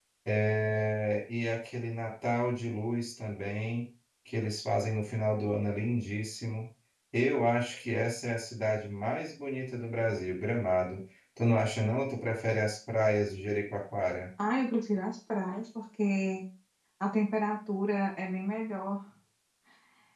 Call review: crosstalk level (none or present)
none